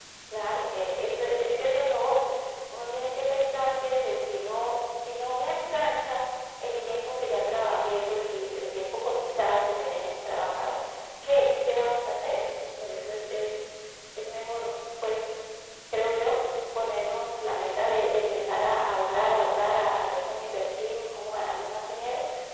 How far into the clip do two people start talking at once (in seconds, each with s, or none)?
none